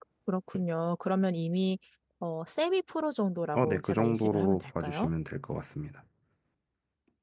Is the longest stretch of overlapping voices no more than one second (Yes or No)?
No